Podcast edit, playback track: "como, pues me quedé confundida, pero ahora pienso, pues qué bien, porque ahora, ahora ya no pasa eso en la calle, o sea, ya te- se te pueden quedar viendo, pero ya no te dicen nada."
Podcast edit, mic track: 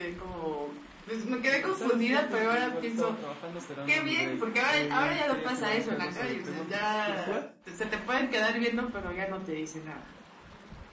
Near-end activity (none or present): present